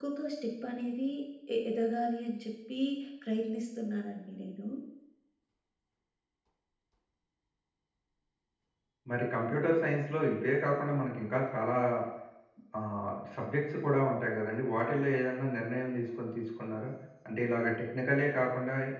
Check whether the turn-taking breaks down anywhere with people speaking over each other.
No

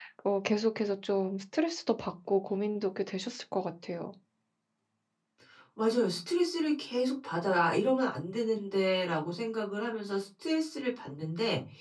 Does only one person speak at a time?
Yes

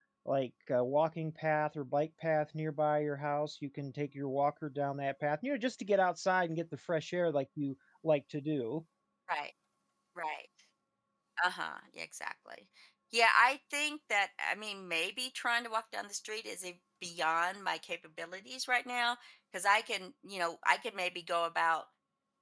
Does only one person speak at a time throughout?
Yes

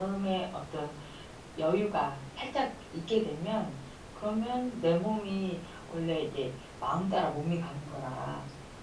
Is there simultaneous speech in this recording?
No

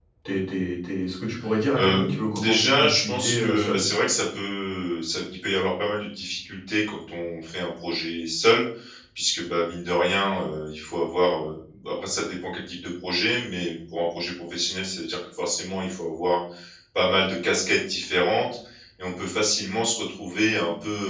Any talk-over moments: Yes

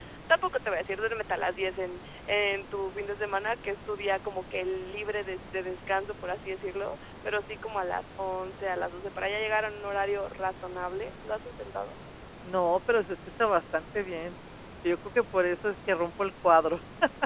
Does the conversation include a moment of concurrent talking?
No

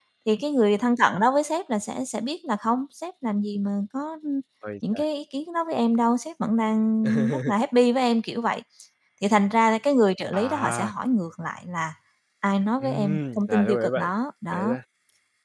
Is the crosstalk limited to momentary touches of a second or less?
No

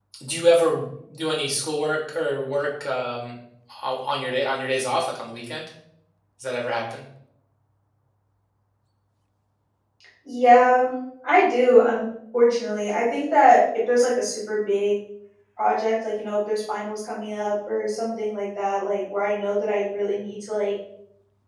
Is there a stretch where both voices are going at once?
No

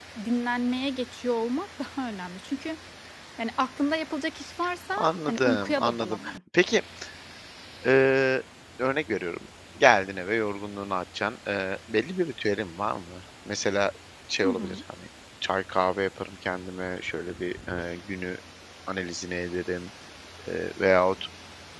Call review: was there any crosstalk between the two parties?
Yes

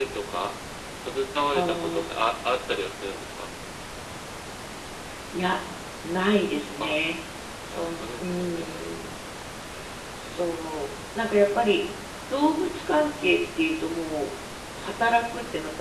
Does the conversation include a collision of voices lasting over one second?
Yes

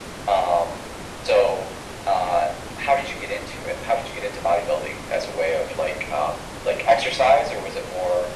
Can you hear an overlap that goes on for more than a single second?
No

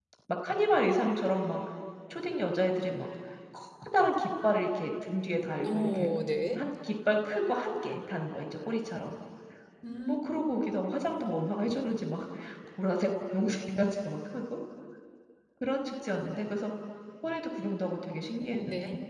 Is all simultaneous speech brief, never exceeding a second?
Yes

